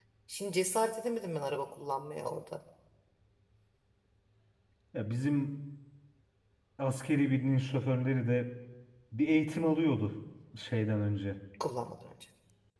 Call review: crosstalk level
none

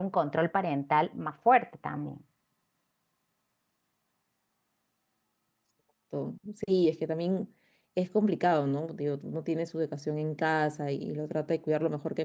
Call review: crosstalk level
none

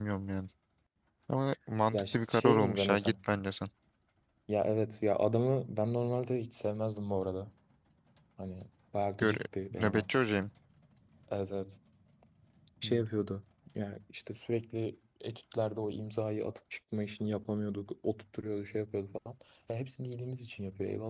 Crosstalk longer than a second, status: present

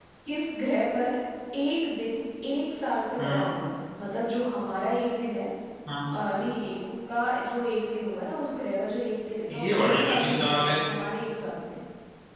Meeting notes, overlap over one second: present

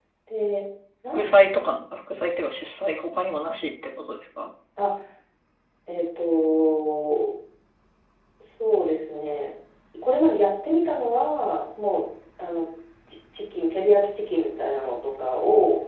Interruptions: none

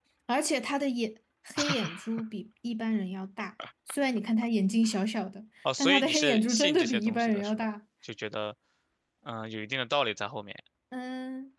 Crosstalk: present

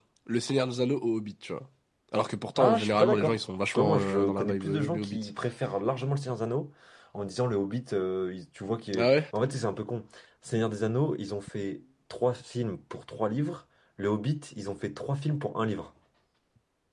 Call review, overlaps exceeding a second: present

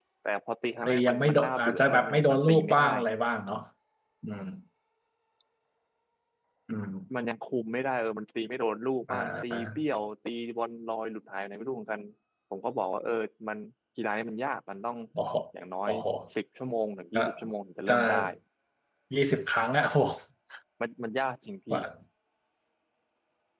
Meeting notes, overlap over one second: present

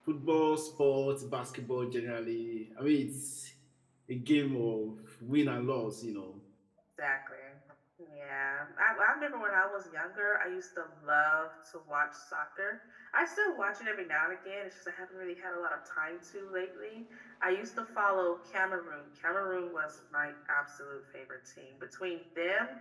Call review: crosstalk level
none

